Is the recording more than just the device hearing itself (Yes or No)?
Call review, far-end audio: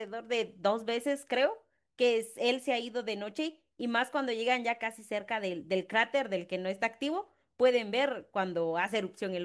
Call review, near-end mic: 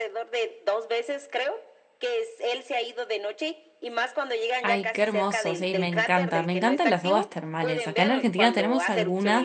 Yes